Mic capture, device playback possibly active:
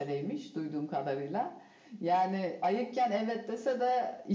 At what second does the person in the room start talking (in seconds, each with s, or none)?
none